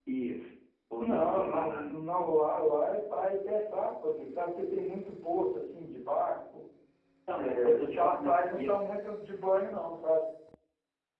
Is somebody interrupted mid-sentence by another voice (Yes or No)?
Yes